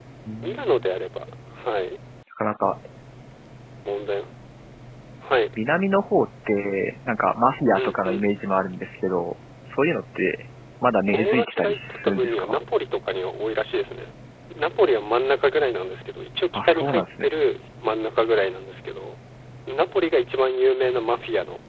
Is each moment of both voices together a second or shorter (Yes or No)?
No